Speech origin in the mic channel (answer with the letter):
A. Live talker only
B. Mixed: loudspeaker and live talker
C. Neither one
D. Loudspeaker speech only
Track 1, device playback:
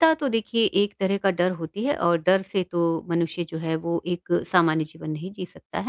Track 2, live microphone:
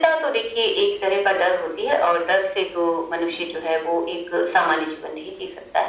D